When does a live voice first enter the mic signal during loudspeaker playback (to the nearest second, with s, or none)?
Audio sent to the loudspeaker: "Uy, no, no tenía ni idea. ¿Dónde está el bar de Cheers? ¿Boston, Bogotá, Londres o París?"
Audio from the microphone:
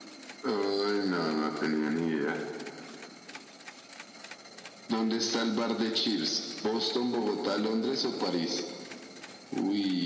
none